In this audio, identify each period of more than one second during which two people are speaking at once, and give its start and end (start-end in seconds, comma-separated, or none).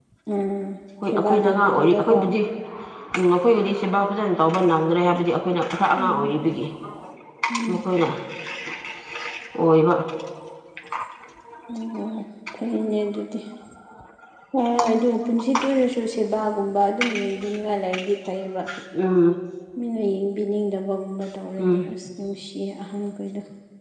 1.0-2.3